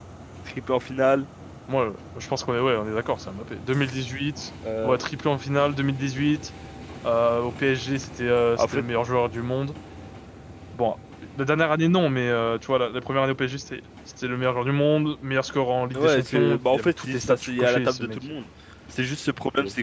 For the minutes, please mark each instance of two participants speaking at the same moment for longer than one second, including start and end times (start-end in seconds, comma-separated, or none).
15.9-18.2